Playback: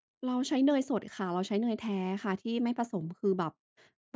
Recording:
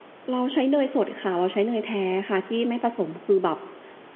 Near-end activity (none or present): none